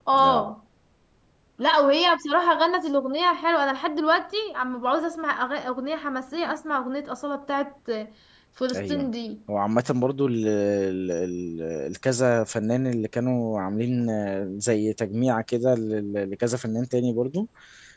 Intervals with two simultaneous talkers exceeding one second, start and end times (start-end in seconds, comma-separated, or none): none